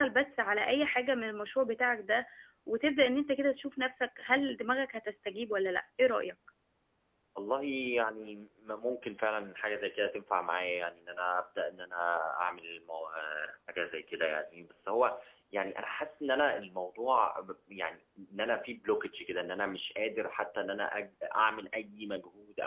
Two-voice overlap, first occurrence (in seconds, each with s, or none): none